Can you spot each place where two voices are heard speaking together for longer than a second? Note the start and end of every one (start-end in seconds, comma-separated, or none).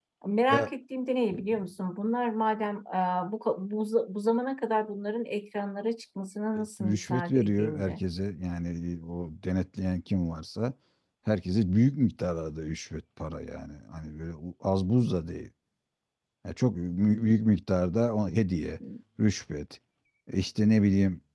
6.6-8.0